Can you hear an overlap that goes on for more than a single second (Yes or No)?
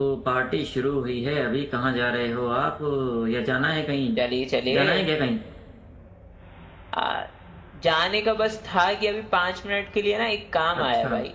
No